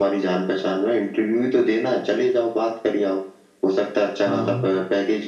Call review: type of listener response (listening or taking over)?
listening